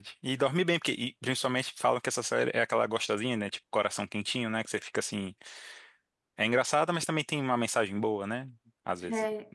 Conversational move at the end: taking over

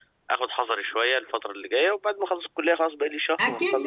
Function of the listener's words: taking over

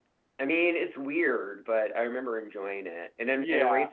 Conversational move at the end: listening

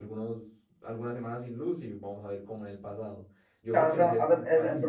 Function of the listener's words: taking over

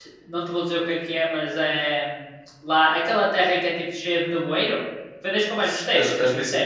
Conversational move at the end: taking over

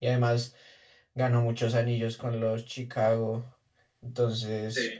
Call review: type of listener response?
listening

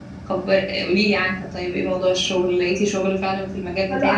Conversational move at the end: taking over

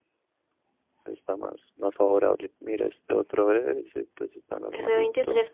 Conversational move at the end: taking over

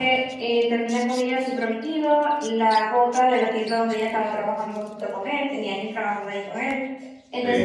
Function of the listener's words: listening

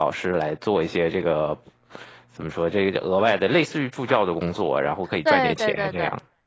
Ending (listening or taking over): taking over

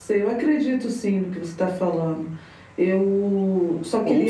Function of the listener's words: taking over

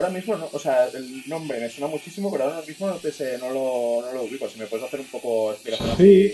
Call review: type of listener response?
taking over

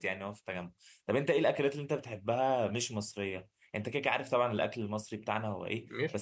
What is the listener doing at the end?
listening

